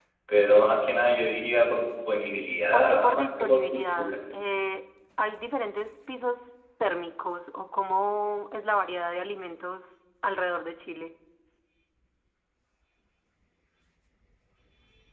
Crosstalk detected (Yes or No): Yes